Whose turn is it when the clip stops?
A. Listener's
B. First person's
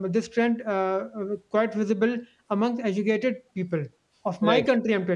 B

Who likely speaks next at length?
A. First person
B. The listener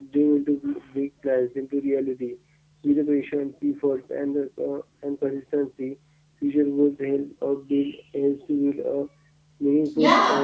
B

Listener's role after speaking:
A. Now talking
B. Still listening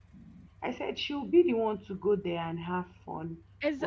A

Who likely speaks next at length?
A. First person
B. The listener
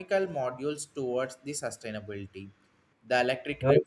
A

